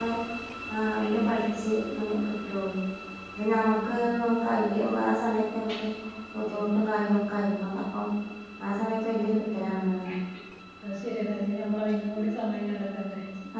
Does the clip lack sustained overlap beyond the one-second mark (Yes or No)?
Yes